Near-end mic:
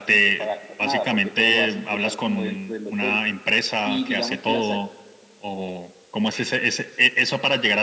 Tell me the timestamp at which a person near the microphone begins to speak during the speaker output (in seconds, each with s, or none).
none